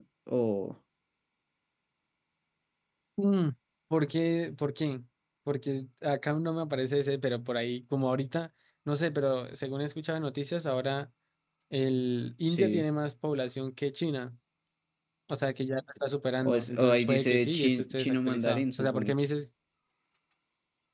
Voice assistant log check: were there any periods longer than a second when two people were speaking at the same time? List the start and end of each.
16.4-19.1

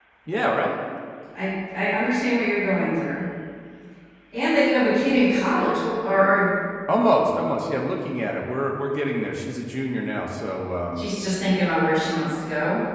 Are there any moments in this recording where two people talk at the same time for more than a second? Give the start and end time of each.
none

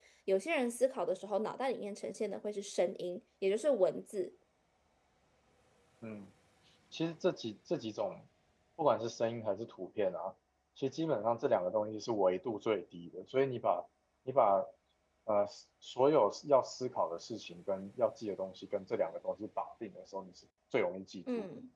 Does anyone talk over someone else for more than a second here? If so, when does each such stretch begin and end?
none

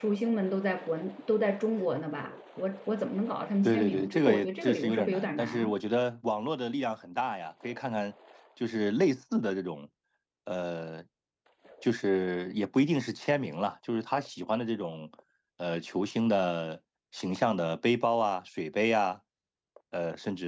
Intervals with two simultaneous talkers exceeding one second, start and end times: 3.6-5.7

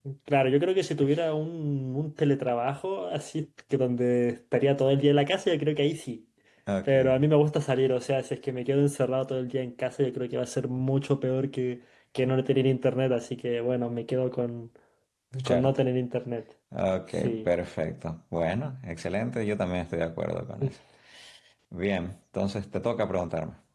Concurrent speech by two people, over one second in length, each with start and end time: none

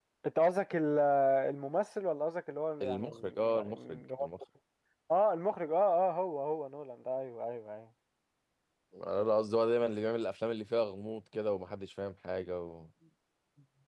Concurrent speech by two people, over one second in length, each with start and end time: 2.8-4.3

